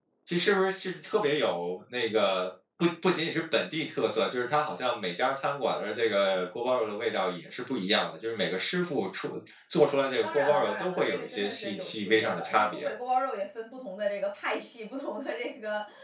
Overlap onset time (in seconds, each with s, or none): 10.2 s